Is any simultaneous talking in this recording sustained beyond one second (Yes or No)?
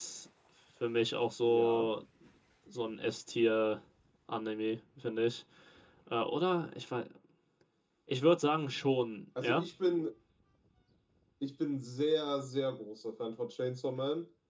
No